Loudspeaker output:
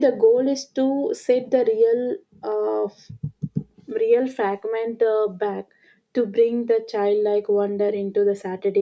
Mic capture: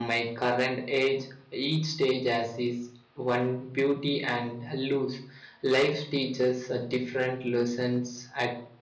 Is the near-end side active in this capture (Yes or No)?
Yes